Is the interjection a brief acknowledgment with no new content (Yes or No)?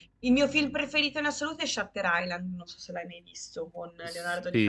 No